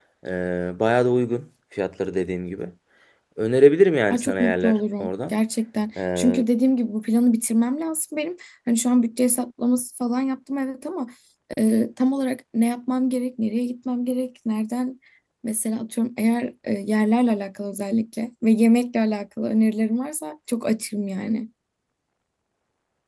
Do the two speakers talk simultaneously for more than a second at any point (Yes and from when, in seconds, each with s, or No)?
Yes, from 4.1 s